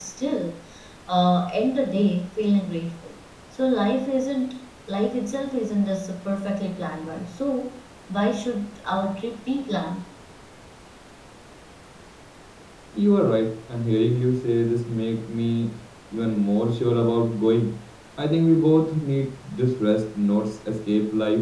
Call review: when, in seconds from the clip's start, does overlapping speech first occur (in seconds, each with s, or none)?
none